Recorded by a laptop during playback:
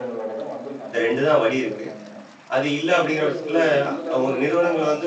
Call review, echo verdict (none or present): present